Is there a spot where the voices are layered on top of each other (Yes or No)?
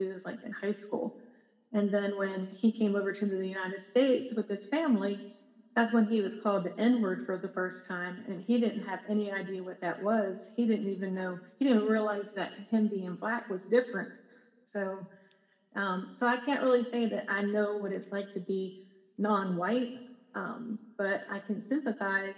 No